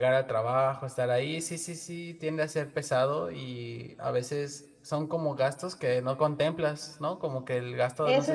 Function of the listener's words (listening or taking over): taking over